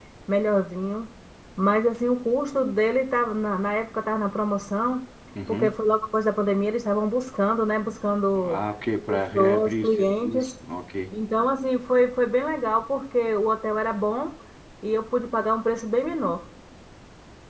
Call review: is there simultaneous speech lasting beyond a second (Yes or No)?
Yes